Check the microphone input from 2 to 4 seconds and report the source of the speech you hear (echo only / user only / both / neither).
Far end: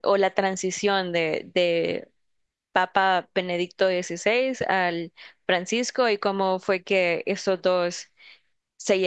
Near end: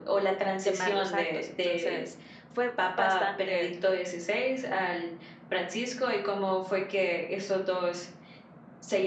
both